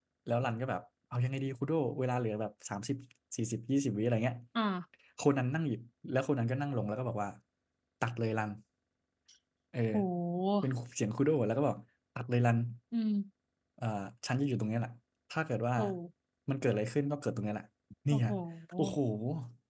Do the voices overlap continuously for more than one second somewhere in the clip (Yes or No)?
No